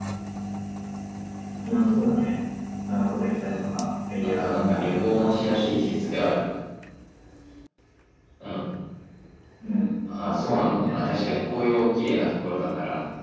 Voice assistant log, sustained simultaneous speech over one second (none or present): present